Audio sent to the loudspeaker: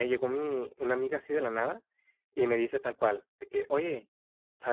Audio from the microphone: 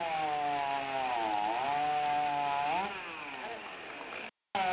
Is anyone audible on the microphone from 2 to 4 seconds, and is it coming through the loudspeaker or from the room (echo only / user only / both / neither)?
neither